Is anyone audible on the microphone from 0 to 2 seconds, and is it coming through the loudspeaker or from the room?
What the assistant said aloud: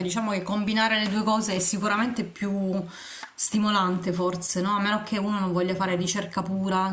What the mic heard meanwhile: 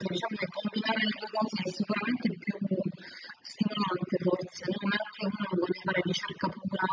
echo only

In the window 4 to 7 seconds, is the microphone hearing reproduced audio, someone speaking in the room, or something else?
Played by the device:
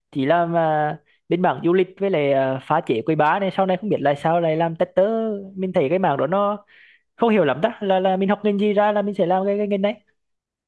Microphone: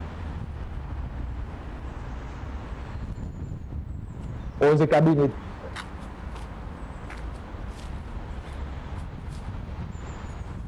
user only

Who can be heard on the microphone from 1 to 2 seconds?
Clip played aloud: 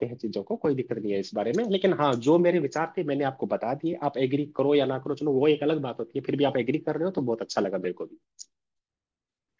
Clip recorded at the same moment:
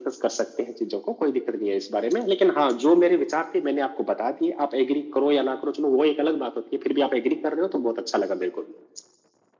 echo only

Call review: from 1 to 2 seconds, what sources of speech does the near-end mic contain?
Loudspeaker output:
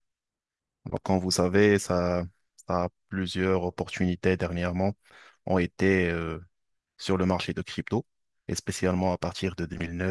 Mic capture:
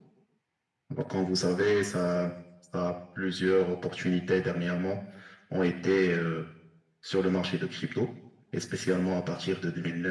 echo only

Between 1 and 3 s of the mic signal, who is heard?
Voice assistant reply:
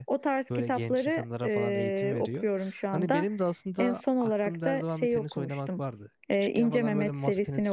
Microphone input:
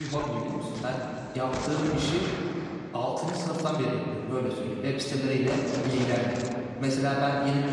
user only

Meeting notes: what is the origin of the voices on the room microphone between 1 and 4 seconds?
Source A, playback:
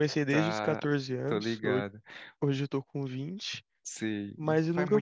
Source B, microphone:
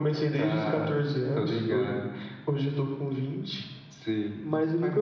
echo only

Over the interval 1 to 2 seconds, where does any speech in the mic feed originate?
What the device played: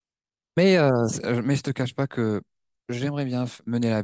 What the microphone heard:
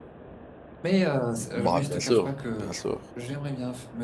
both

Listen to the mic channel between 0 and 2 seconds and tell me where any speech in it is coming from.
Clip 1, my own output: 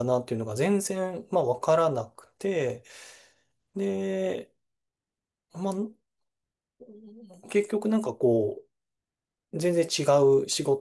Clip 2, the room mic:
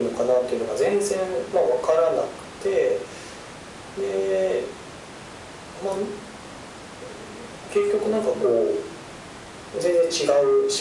echo only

